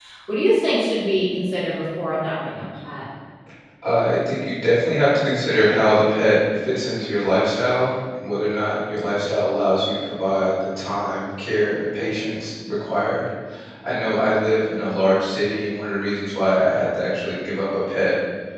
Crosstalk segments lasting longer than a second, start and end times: none

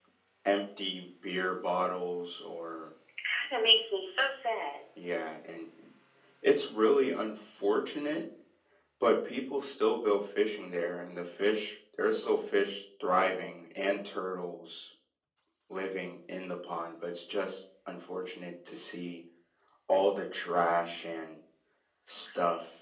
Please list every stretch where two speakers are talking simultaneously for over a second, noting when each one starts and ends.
none

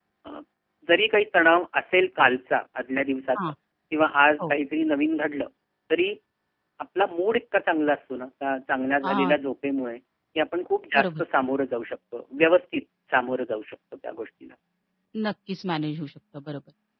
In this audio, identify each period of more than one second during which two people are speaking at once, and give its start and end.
none

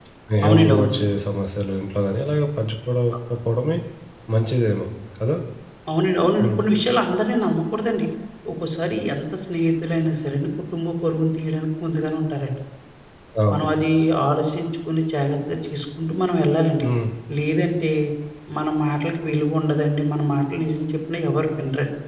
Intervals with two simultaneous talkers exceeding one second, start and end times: none

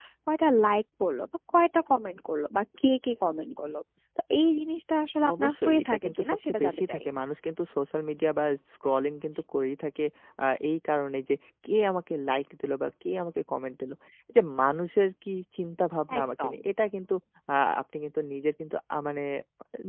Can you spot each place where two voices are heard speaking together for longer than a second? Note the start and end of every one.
5.4-7.0

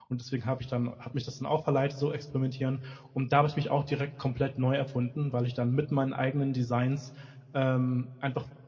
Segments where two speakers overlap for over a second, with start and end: none

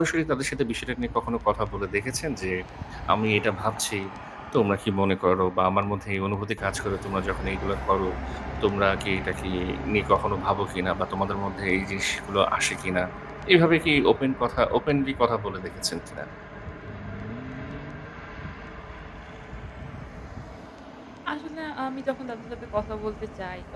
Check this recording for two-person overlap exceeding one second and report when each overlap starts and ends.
none

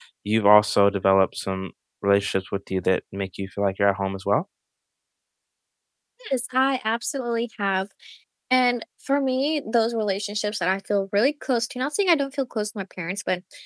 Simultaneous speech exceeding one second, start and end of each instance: none

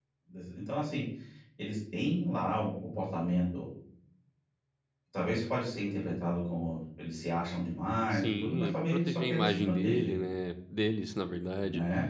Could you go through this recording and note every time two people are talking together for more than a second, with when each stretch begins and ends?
8.1-10.1

